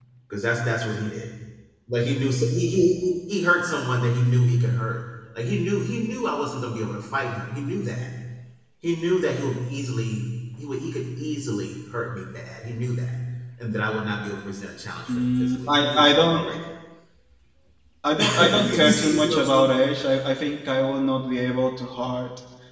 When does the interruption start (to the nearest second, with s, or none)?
15 s